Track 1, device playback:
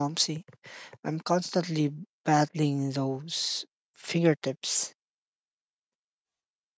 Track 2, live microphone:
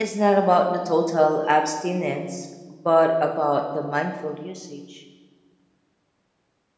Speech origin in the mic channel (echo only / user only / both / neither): user only